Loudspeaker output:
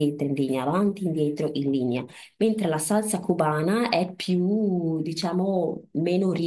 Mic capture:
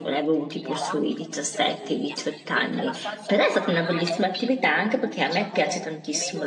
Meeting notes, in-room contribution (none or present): present